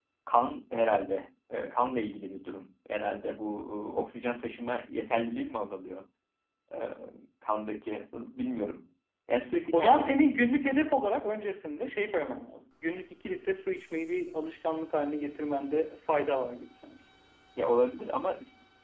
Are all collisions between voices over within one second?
Yes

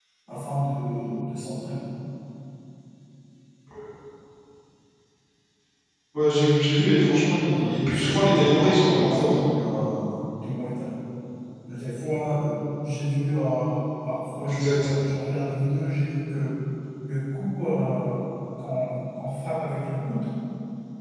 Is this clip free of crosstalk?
No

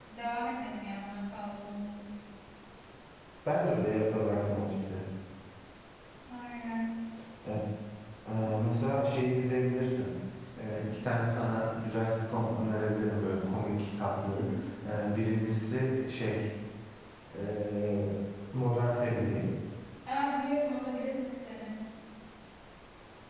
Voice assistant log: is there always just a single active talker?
Yes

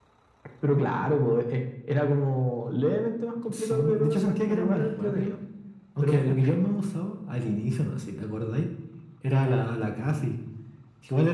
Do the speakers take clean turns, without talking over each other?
No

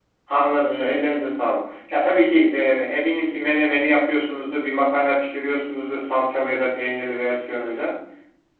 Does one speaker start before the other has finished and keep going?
No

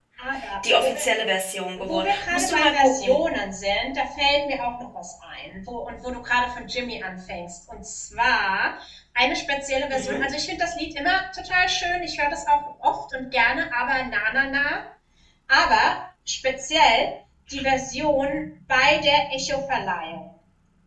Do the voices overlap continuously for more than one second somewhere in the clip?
Yes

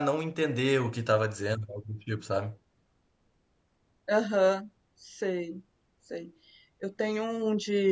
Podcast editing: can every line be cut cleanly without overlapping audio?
Yes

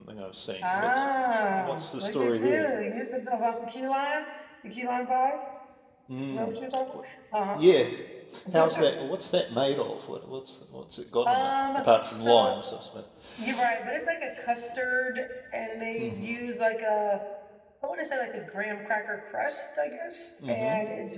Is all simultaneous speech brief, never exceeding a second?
No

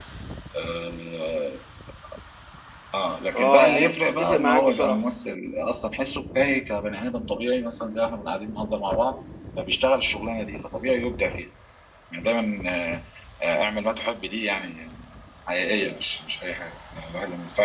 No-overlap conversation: No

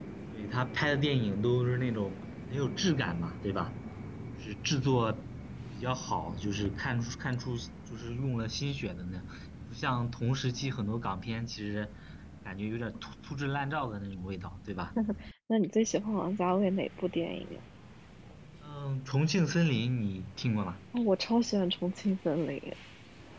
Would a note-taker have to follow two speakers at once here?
No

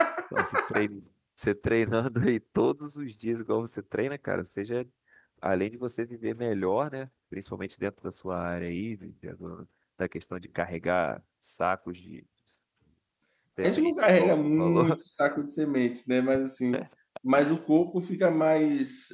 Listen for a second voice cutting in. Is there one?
Yes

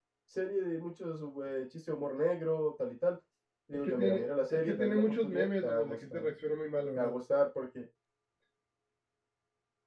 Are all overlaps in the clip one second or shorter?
No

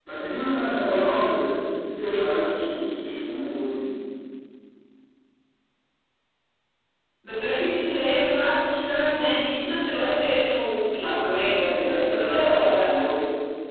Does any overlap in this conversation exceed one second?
Yes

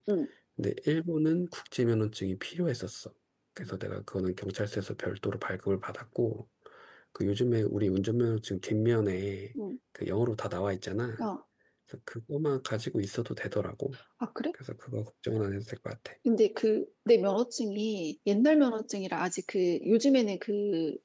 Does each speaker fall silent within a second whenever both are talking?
Yes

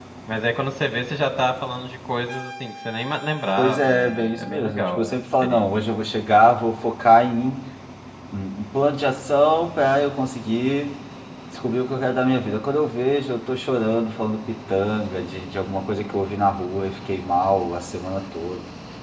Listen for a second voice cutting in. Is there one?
Yes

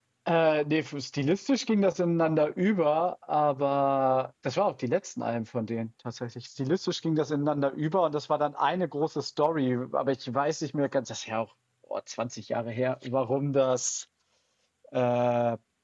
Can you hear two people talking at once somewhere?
No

